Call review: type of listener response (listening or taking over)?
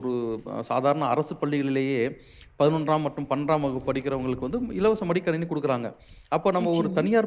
listening